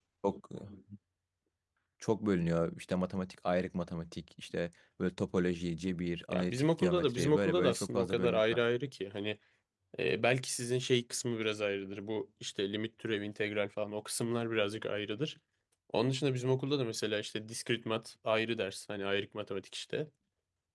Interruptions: present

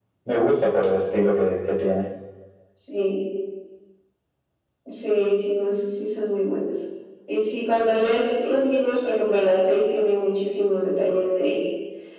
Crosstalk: none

